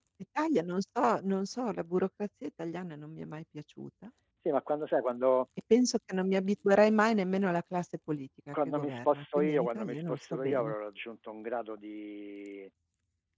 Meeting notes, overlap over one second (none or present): present